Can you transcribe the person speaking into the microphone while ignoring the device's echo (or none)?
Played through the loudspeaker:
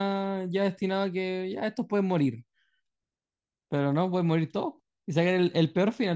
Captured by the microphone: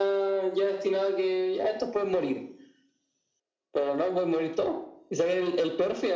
none